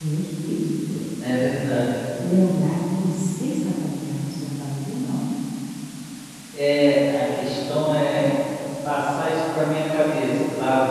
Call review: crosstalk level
none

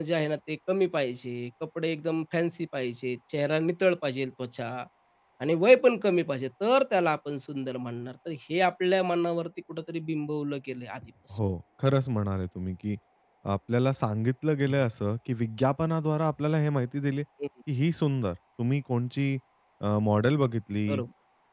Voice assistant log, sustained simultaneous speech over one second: none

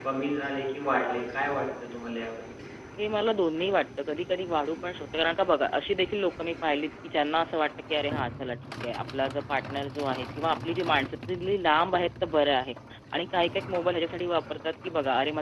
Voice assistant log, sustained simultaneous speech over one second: none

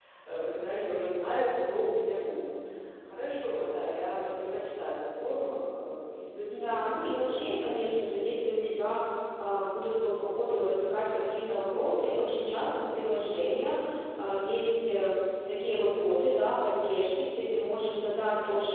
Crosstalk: present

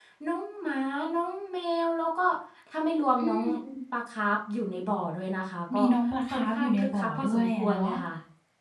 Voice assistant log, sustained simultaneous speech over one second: present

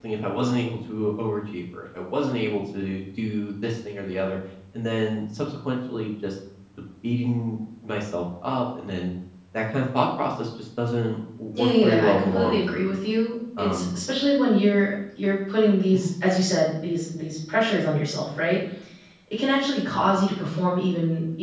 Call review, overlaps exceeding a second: present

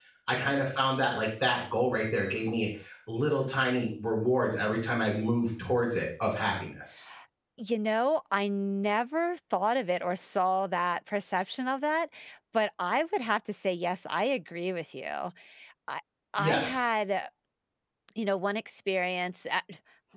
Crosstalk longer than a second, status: none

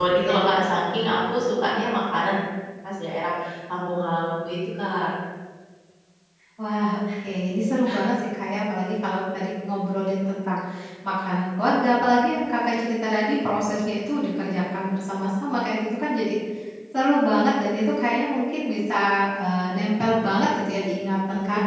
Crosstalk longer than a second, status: none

